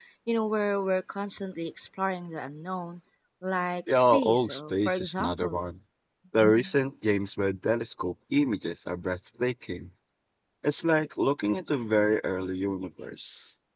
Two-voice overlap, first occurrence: 3.9 s

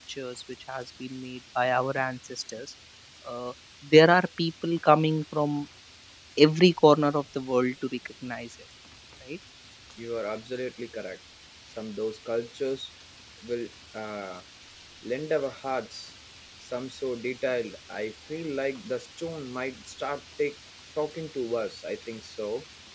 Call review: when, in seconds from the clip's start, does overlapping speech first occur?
none

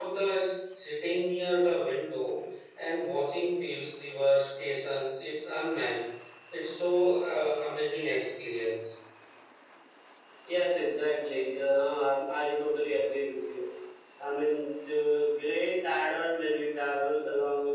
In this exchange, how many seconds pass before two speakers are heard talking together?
none

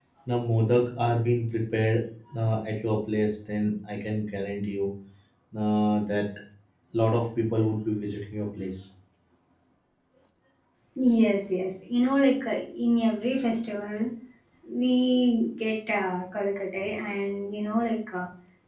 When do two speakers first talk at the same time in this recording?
none

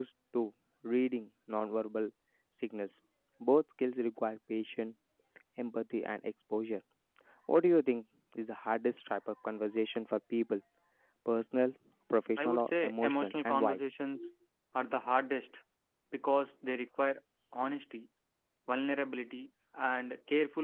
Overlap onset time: 12.4 s

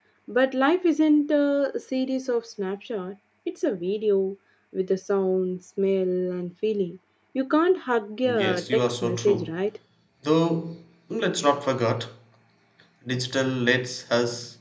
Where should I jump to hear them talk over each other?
8.2 s

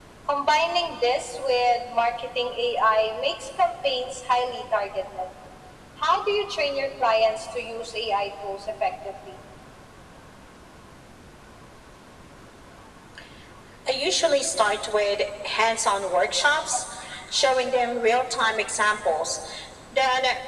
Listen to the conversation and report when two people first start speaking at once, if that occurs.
none

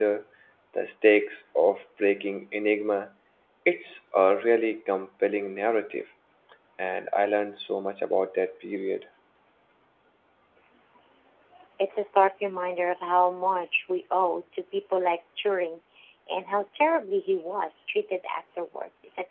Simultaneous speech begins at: none

